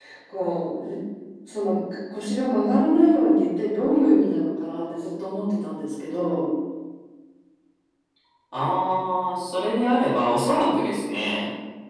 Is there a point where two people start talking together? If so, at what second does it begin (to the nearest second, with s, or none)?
none